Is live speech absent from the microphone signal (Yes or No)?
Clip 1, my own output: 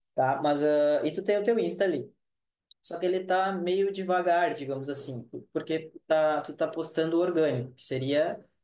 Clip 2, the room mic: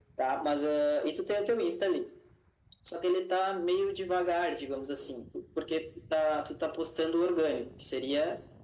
Yes